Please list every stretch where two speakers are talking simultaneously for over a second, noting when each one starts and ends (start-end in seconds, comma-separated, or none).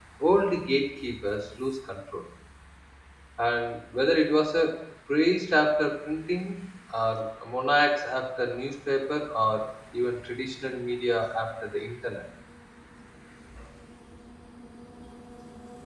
none